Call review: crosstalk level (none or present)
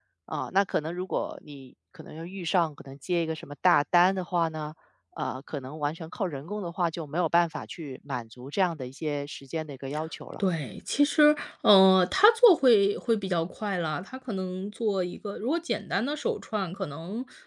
none